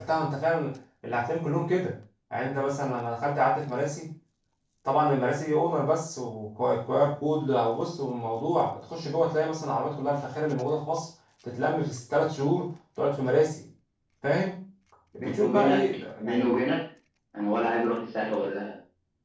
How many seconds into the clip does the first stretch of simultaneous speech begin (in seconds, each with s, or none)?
15.2 s